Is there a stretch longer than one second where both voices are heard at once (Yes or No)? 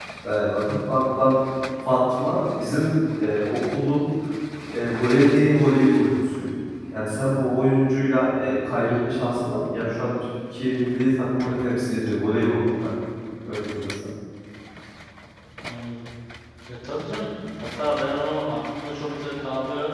No